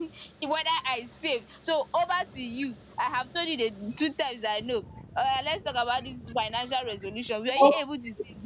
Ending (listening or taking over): listening